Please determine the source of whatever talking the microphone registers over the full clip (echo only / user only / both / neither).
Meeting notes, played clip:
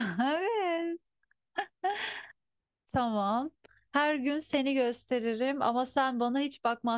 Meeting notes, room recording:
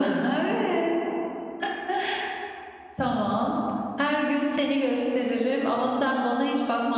echo only